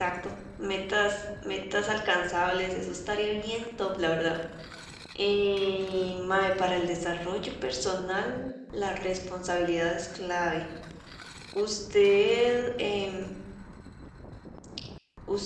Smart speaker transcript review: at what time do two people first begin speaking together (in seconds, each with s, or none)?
none